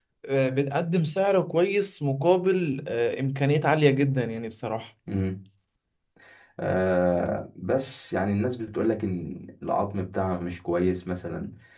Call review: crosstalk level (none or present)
none